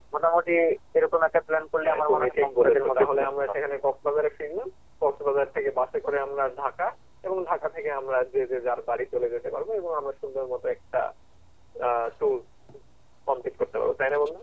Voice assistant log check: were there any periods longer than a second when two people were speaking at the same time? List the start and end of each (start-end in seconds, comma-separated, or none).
1.9-3.6